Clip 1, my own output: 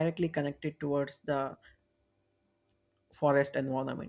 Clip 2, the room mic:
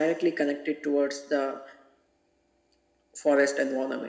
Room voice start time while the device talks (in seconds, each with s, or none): none